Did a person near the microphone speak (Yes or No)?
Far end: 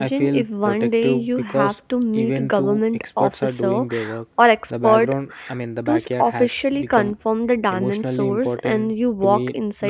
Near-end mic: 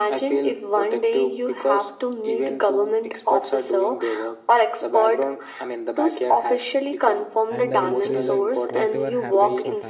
Yes